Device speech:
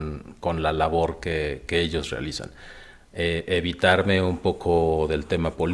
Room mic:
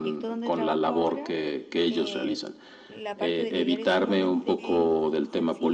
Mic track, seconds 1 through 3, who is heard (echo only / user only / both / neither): both